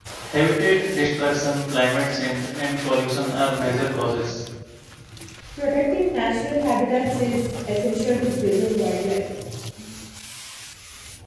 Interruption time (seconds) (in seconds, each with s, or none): none